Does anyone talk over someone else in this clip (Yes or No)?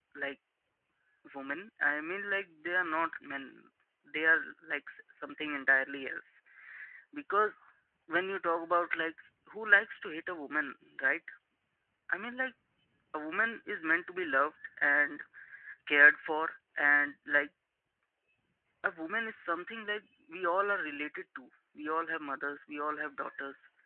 No